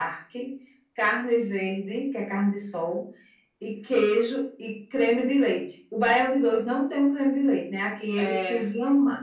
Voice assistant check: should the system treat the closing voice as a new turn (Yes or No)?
No